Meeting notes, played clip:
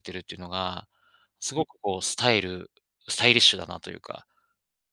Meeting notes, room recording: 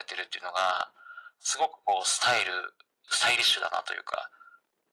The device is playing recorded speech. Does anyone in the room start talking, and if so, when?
none

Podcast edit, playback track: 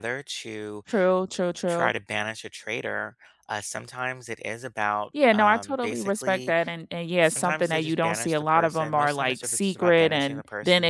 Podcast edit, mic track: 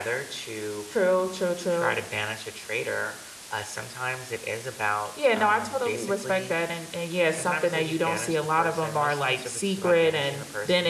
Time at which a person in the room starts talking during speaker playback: none

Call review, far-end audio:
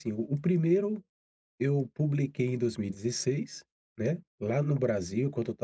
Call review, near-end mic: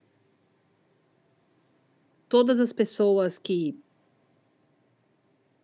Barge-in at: 2 s

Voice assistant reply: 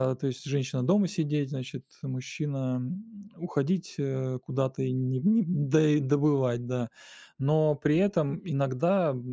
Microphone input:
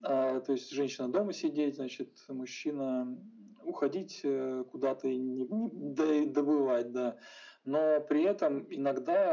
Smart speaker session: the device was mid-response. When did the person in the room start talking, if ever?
none

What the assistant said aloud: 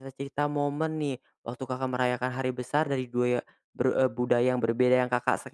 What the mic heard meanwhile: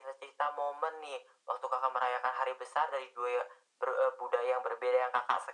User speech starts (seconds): none

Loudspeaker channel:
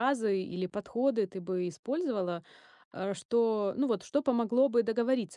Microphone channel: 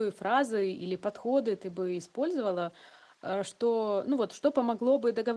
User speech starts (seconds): none

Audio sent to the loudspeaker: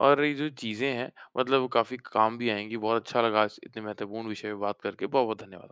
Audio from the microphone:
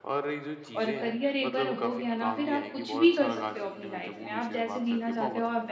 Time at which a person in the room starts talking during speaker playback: 1 s

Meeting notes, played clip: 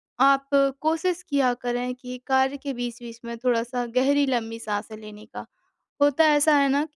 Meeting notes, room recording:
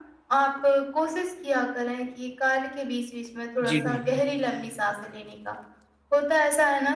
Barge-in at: 4 s

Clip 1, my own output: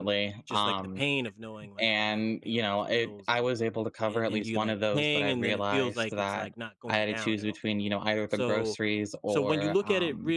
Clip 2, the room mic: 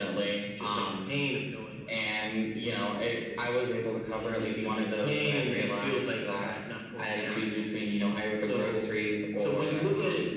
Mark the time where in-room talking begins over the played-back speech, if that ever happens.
none

